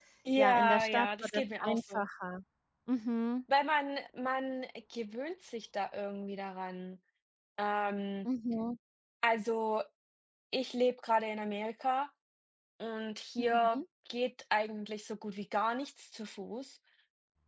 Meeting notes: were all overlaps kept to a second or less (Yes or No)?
No